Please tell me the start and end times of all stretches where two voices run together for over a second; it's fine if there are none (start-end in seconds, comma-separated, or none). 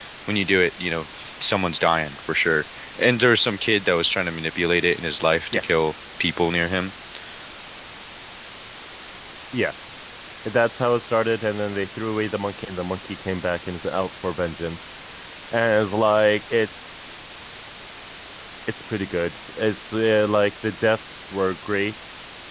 none